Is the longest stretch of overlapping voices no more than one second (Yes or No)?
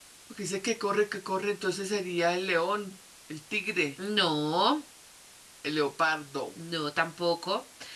Yes